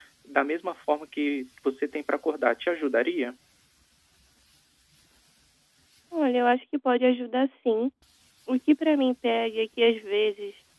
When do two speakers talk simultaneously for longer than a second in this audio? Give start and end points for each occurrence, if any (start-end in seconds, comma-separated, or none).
none